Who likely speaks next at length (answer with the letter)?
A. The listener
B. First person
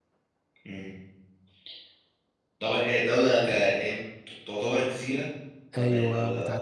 A